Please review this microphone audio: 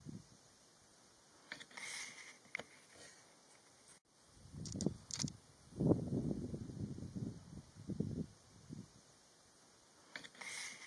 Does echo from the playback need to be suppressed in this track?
No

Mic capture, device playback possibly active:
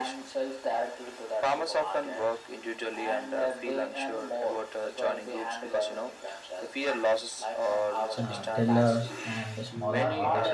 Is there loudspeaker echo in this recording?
Yes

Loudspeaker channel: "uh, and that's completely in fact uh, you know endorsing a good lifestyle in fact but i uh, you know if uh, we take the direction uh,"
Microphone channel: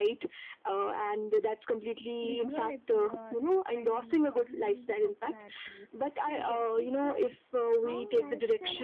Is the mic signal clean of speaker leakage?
No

